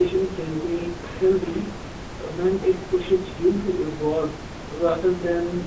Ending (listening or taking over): taking over